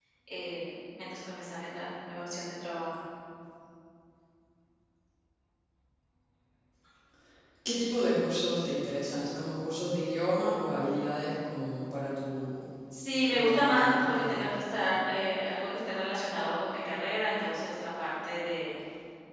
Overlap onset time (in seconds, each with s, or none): 13.3 s